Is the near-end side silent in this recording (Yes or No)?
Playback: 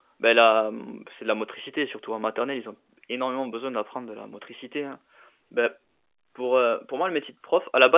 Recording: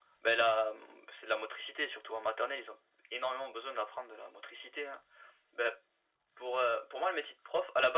Yes